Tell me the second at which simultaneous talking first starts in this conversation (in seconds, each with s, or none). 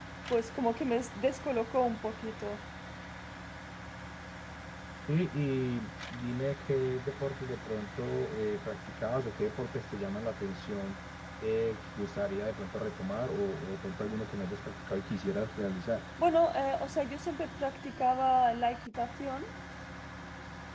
none